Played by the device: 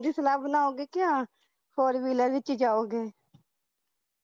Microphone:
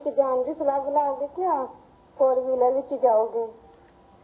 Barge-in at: none

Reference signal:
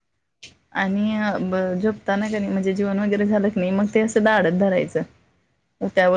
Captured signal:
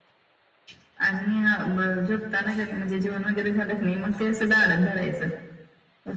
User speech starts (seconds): none

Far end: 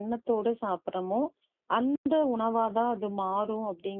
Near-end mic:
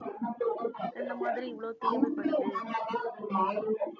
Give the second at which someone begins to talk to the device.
1.0 s

